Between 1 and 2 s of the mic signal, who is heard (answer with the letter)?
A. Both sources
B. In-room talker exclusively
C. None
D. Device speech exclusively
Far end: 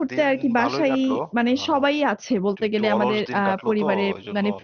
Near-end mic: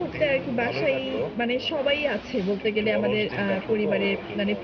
D